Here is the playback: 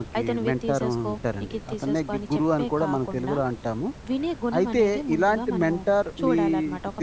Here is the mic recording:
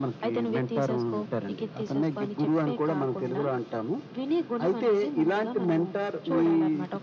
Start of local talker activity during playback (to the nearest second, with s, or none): none